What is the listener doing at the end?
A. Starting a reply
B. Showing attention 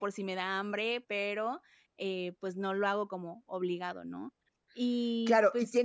A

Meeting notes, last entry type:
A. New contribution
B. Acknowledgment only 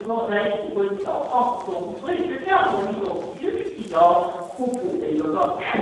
A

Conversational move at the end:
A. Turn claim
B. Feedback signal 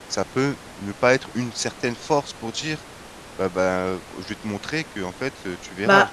A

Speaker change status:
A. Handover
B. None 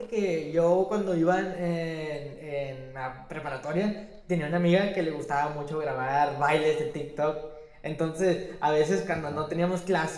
B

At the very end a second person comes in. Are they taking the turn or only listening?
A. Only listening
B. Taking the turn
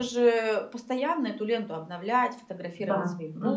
A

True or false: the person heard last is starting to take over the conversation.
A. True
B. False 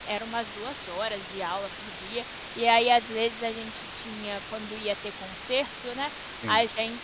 B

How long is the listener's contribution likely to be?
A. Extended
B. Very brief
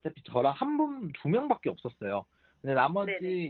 B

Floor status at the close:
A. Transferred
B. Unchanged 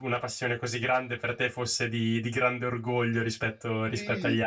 A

